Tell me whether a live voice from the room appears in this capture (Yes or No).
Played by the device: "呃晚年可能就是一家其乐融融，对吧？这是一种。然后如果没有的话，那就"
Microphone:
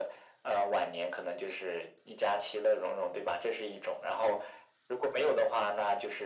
No